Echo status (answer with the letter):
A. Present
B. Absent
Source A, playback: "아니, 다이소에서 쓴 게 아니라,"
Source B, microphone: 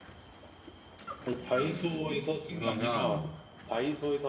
A